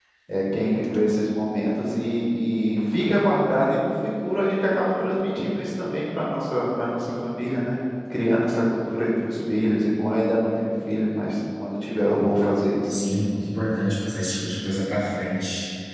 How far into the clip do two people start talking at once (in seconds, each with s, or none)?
none